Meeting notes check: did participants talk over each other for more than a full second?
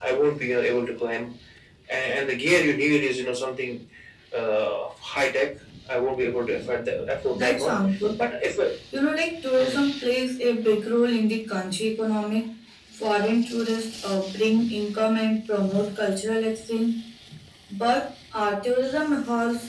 No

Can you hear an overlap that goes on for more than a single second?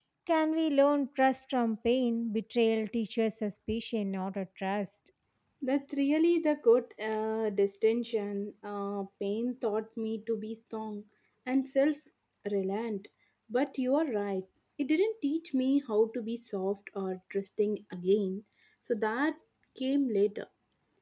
No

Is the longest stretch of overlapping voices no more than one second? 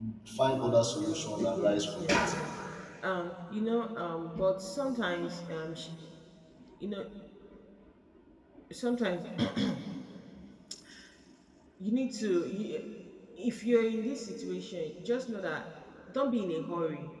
No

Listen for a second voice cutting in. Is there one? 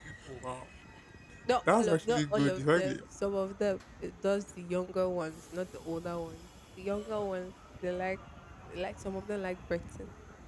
Yes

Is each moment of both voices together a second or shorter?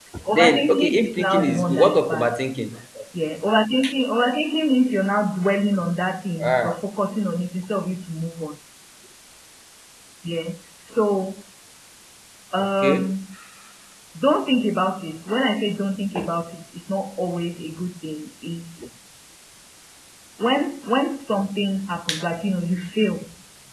No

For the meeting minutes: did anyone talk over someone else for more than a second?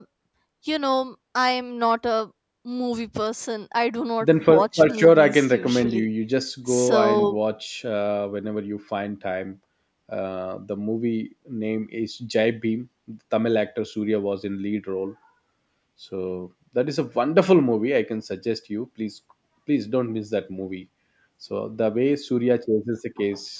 Yes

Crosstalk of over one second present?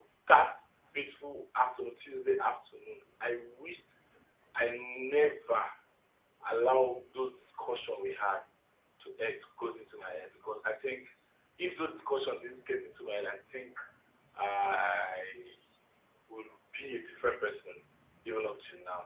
No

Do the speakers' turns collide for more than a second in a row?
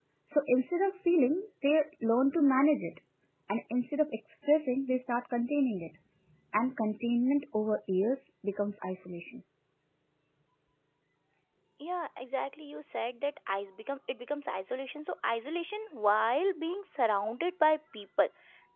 No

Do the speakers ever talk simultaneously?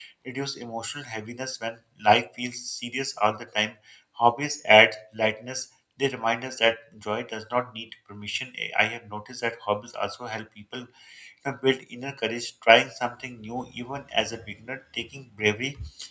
No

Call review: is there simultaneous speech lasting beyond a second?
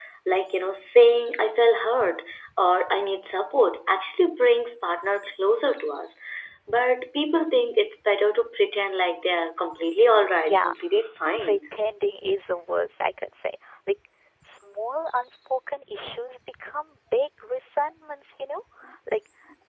No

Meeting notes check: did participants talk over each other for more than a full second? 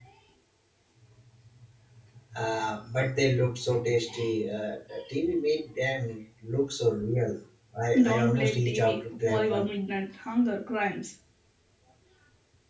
Yes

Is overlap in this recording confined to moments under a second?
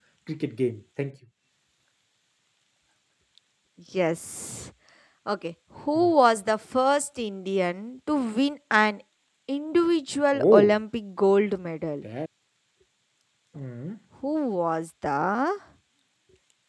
Yes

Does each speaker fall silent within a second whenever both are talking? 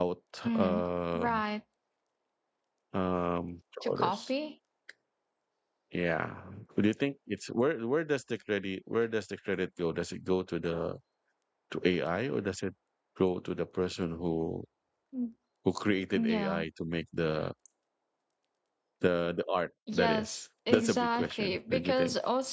No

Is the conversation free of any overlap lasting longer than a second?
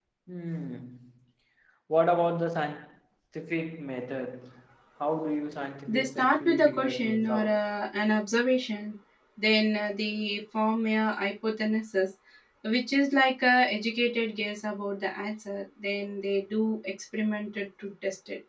No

